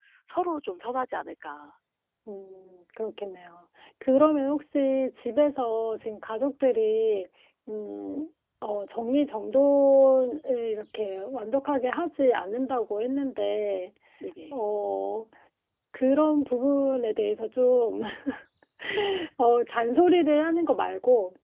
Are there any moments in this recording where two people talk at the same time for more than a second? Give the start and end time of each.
none

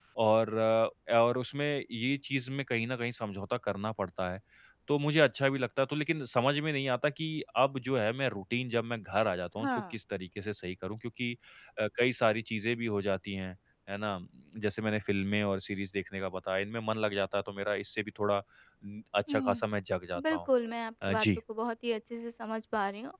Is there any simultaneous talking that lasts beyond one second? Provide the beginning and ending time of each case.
none

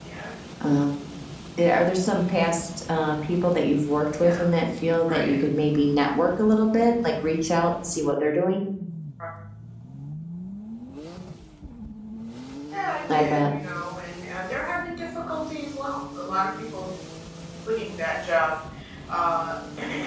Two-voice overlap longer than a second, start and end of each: none

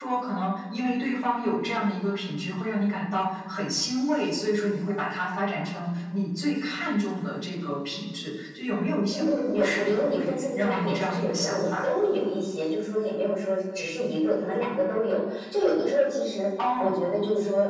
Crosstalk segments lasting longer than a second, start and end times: 9.1-11.7

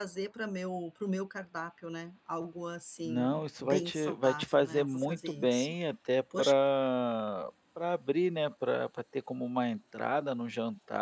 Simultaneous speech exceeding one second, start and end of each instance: 3.0-5.8

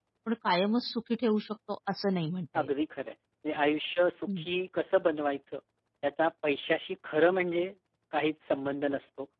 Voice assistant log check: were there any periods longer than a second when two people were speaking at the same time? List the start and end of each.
none

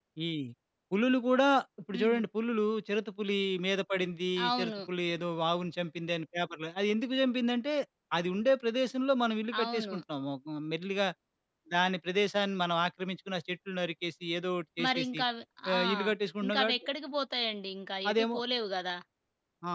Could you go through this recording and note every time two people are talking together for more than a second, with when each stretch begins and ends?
none

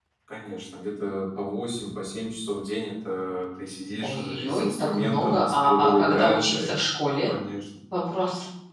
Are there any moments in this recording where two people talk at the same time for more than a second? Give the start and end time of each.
4.0-6.6

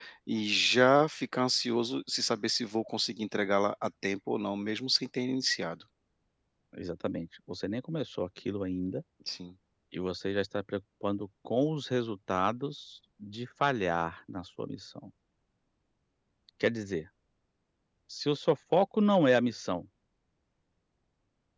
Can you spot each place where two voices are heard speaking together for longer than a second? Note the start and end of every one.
none

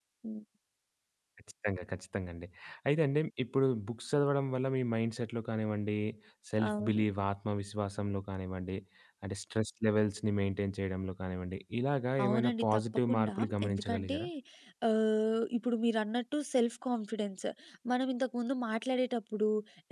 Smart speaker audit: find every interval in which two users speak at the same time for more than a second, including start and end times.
12.2-14.2

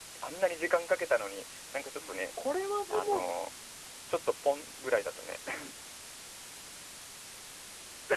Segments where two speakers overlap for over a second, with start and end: none

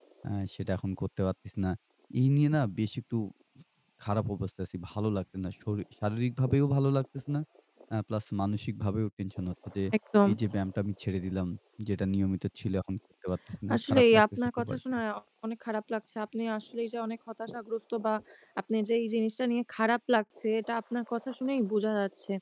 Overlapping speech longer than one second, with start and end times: 13.7-14.9

